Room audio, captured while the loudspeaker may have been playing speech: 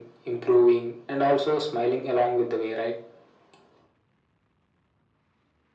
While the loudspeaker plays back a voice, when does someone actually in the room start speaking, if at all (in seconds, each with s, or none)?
none